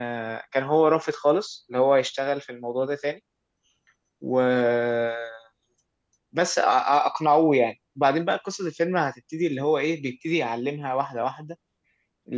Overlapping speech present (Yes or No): No